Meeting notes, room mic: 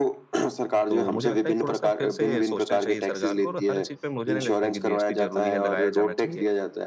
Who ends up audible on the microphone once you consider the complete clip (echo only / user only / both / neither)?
both